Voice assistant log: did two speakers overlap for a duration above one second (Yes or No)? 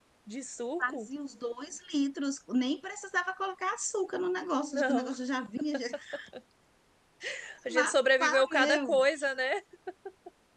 Yes